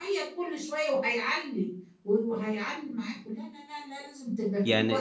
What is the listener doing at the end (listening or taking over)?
taking over